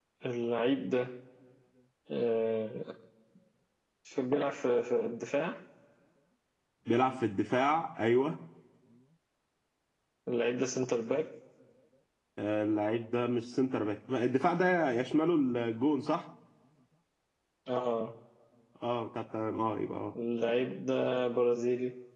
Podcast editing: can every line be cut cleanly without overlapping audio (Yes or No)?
Yes